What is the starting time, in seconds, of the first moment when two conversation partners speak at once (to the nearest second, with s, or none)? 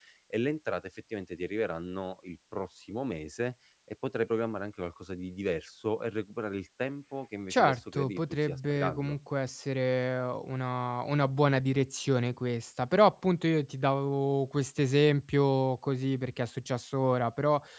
8 s